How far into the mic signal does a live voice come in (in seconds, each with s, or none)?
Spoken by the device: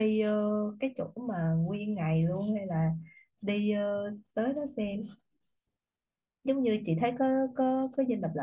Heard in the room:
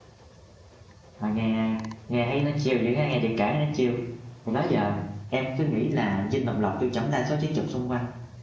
1.2 s